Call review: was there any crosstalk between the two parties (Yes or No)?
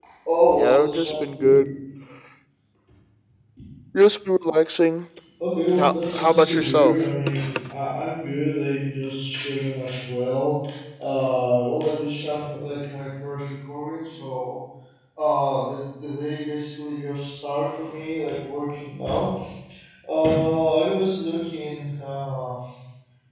Yes